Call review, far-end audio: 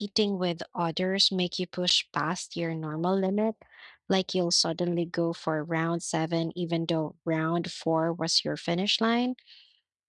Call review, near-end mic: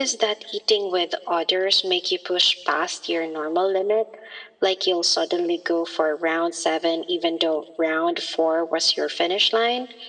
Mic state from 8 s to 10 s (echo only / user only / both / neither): echo only